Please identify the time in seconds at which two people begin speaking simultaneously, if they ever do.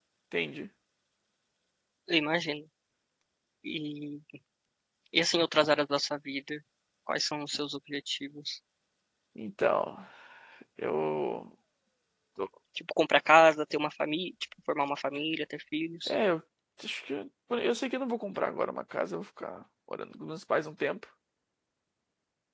none

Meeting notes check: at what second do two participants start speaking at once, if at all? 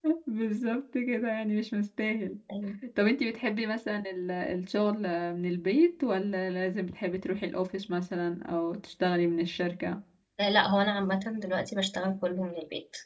none

